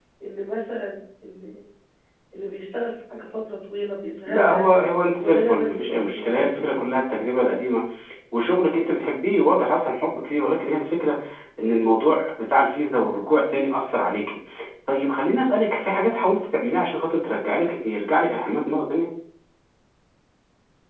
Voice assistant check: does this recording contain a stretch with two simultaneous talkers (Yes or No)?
Yes